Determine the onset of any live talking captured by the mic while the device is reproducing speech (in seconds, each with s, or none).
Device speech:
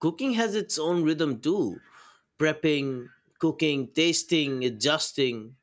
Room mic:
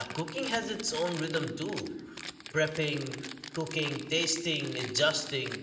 none